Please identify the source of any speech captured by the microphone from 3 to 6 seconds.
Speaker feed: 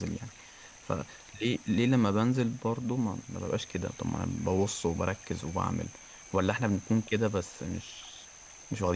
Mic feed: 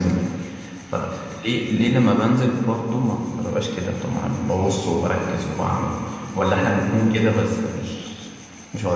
echo only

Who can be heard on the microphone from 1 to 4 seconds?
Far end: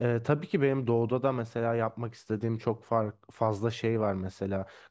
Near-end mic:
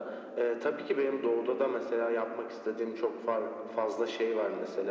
echo only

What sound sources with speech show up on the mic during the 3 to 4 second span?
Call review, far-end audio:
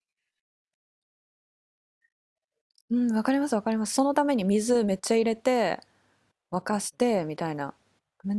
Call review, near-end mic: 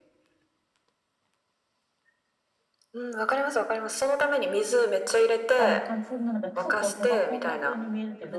echo only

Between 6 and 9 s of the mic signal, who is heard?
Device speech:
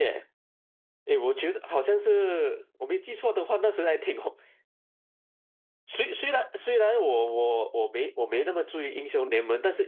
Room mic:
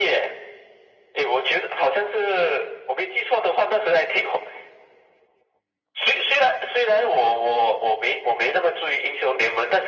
echo only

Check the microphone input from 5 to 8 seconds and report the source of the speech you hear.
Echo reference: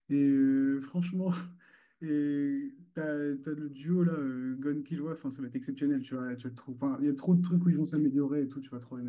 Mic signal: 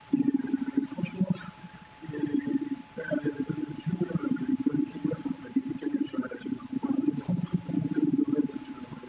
echo only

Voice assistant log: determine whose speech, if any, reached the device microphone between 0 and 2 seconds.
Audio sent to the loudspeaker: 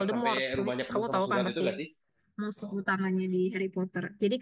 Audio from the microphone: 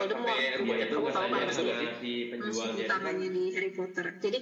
both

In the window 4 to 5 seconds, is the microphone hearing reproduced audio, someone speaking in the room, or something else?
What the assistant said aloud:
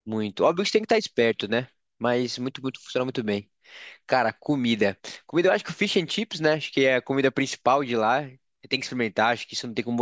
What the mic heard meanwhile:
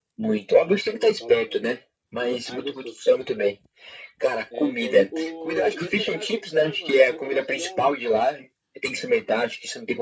both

